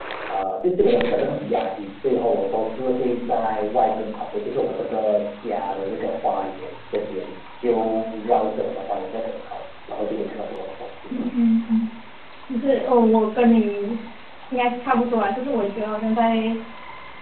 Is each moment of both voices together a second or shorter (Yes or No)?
Yes